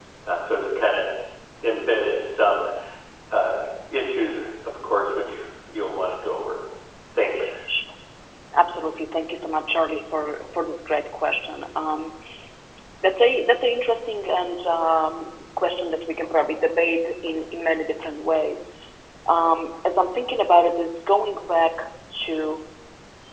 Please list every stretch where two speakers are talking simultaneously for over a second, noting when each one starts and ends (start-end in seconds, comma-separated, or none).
none